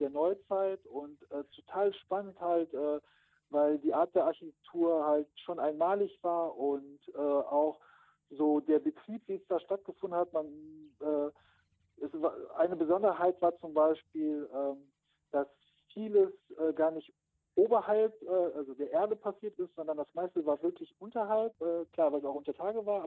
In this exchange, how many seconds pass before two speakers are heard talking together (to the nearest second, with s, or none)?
none